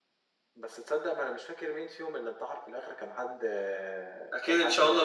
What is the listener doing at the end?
taking over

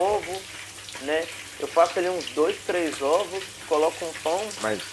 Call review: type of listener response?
taking over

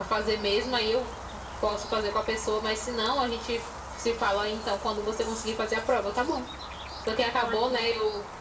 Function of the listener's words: listening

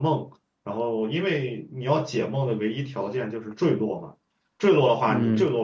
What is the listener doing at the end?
listening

